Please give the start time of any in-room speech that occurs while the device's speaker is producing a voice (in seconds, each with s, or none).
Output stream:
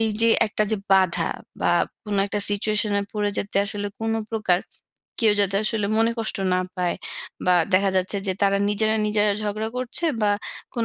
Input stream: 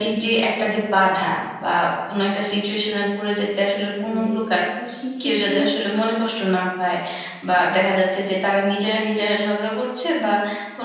3.8 s